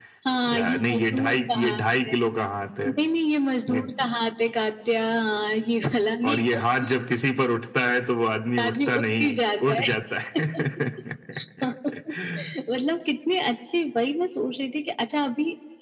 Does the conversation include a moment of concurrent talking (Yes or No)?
Yes